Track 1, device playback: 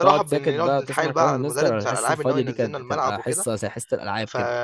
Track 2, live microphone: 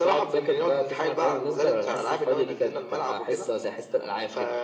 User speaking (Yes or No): No